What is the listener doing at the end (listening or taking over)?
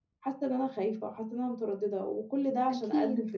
listening